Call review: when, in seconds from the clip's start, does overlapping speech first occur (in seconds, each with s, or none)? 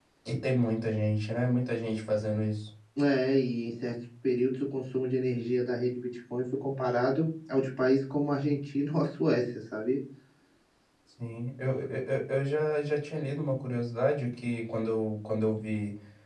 none